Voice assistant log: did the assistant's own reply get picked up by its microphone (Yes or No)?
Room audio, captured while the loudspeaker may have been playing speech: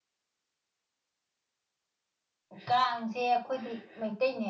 No